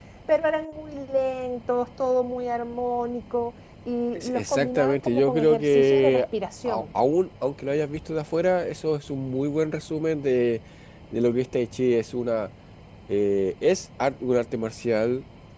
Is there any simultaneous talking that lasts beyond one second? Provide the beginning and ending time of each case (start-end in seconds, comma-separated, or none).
4.2-6.2